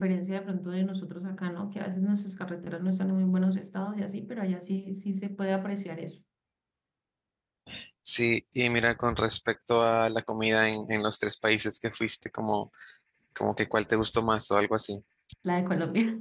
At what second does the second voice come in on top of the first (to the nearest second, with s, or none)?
none